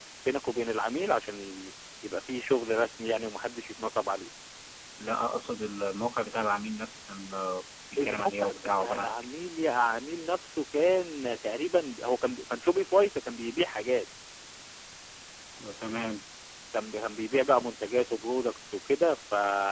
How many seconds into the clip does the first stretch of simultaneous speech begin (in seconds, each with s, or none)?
8.0 s